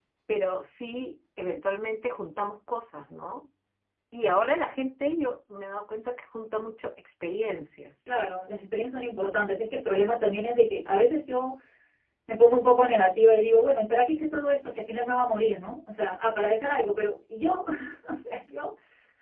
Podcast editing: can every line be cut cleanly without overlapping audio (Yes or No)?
Yes